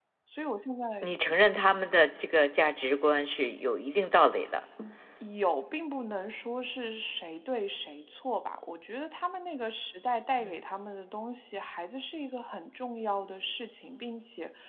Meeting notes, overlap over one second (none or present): none